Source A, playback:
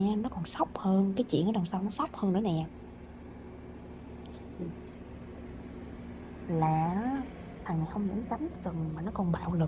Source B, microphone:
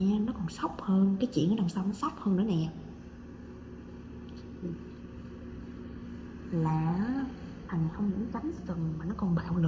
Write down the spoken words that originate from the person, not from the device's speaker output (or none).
none